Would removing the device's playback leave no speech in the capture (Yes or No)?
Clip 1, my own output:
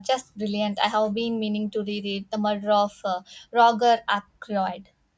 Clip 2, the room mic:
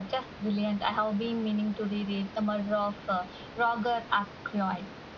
Yes